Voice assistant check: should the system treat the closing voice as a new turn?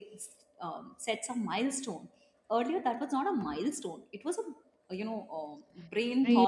Yes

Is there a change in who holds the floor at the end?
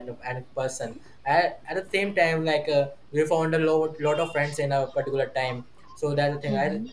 No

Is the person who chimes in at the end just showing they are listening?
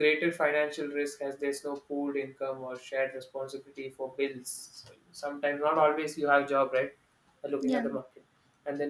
Yes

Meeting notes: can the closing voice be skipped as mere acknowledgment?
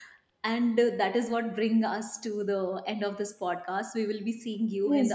No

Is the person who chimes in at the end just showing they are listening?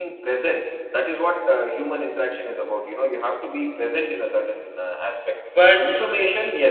Yes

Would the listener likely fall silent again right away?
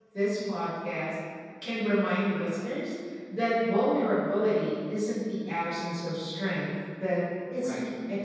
No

